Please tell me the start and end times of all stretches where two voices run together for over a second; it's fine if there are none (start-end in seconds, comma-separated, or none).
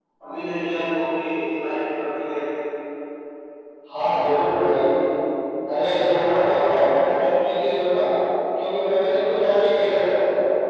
none